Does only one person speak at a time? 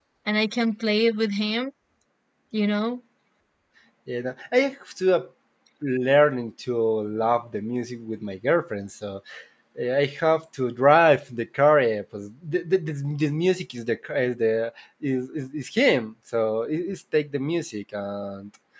Yes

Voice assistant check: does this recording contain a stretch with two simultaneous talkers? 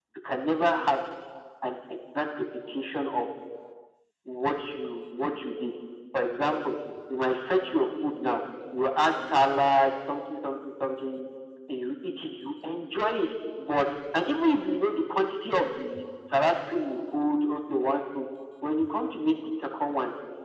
No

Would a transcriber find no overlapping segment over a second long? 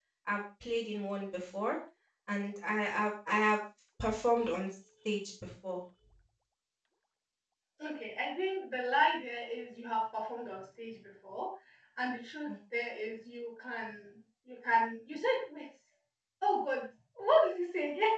Yes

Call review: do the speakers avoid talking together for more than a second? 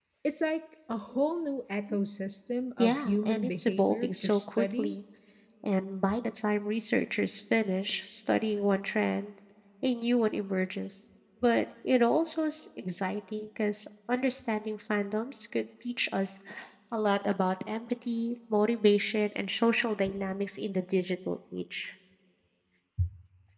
No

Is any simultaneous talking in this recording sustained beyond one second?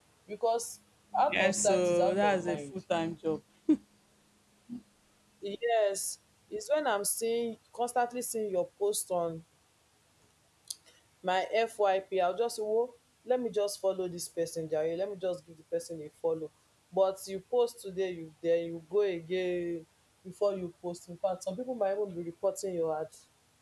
Yes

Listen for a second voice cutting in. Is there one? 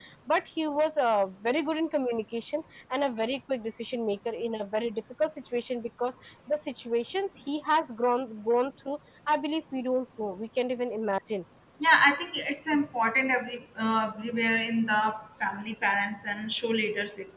No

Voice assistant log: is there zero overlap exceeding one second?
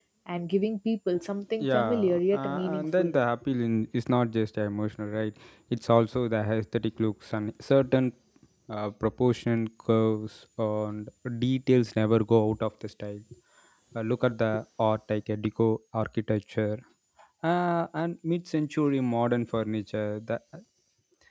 No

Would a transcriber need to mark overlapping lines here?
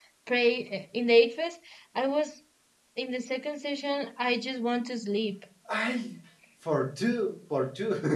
No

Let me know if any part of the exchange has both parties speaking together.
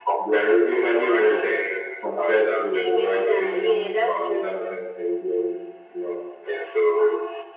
Yes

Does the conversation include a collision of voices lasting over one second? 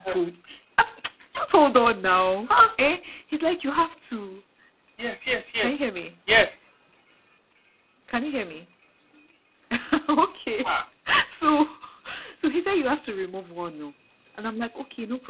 No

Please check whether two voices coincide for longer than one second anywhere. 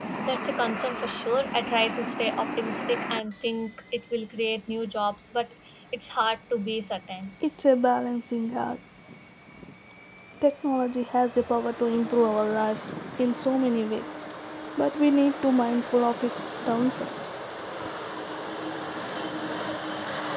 No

